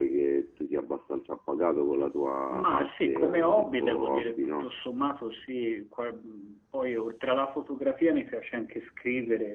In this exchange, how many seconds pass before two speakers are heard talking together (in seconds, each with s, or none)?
2.5 s